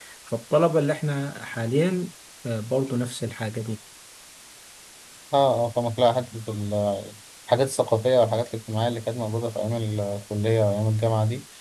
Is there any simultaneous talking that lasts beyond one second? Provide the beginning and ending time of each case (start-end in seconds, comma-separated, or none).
none